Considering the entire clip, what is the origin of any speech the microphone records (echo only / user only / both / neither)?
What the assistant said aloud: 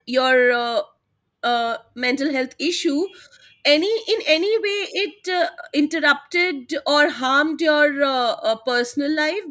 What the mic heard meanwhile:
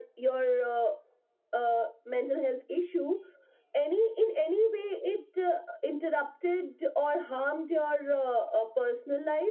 echo only